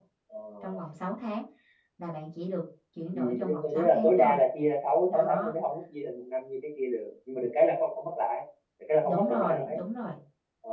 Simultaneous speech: Yes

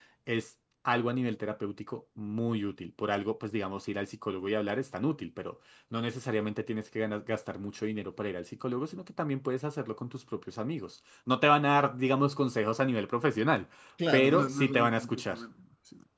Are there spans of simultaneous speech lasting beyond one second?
Yes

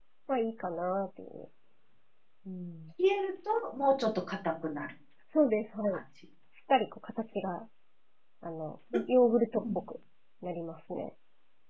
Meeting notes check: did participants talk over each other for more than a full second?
No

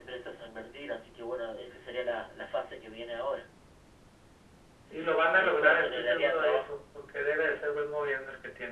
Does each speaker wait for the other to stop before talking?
No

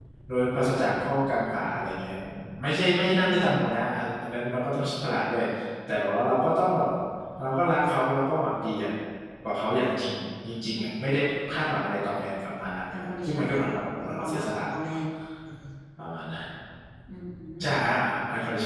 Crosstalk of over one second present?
Yes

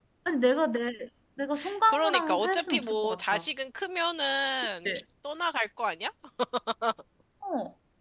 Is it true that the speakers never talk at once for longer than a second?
No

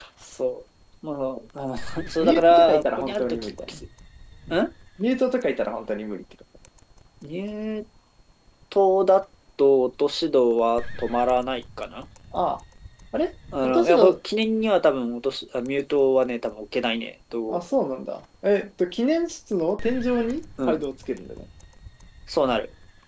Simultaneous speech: Yes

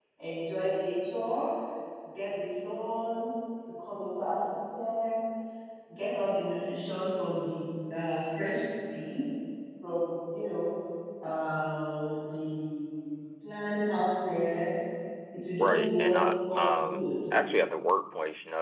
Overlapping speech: Yes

